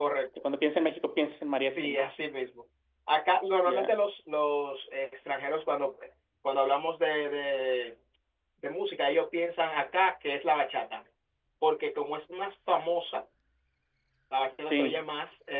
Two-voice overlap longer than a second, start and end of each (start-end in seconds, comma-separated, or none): none